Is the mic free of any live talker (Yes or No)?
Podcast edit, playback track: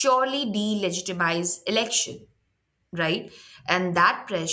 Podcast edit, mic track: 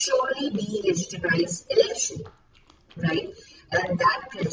Yes